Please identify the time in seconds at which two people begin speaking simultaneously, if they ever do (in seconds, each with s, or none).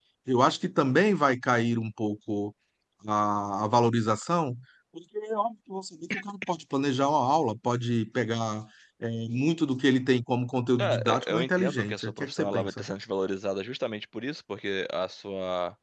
10.8 s